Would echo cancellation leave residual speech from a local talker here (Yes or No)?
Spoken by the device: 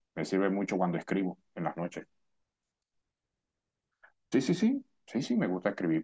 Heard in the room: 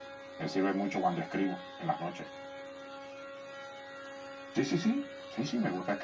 No